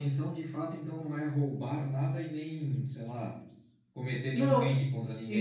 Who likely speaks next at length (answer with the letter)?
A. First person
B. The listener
B